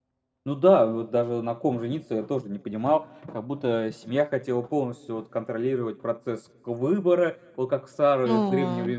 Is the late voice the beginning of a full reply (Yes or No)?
No